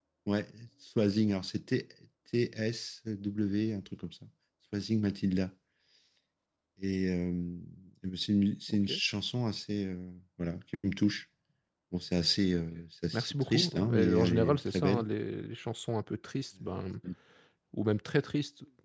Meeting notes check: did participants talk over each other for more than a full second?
Yes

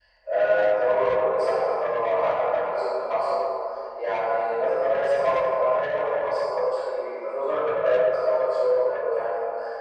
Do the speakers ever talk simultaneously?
No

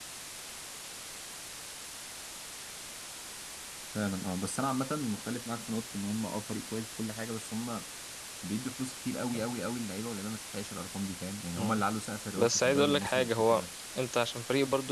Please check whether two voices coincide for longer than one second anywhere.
Yes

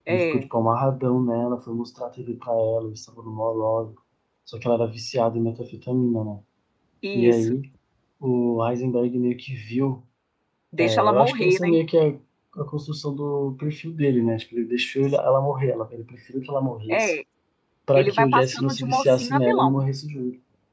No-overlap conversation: No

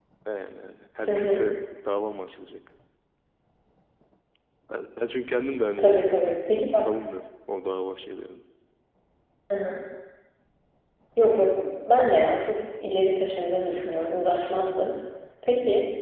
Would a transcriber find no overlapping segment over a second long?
Yes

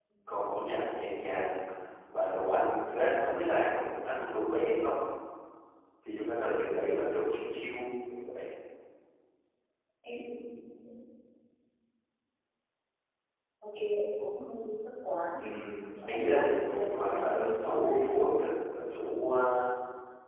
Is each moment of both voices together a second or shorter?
No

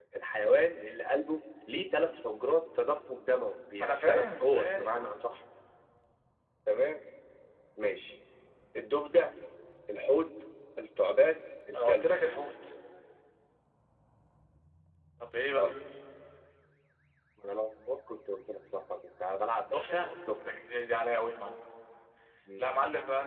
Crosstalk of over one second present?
Yes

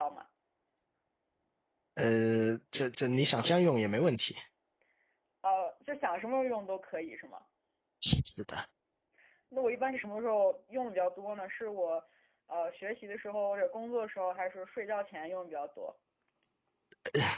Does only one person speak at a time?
Yes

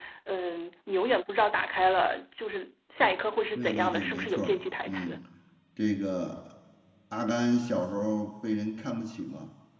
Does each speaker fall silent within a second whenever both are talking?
No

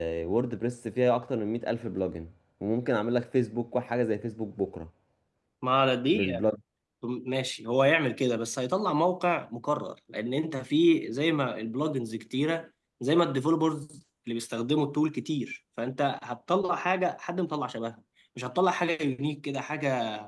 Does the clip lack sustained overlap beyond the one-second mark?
Yes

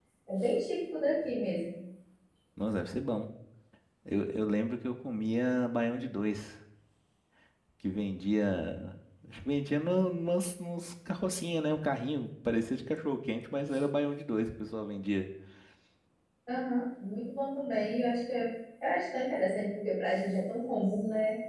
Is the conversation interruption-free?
Yes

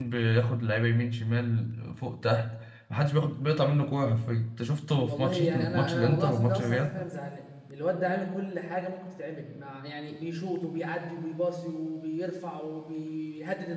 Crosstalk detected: Yes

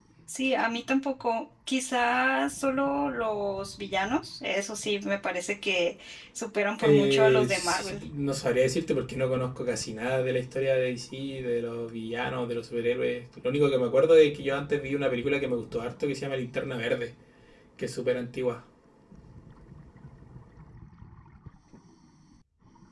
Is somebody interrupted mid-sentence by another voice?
Yes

